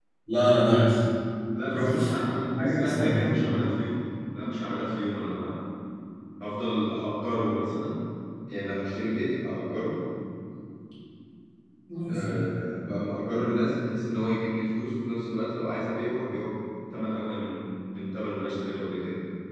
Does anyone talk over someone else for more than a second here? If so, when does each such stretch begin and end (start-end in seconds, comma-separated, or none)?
1.7-3.6